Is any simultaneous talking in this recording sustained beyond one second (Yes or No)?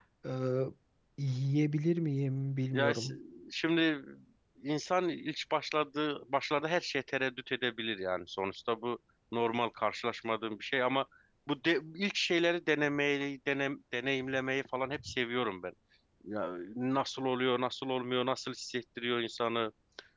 No